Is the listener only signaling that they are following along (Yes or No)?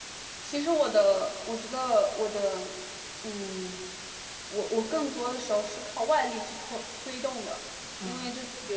Yes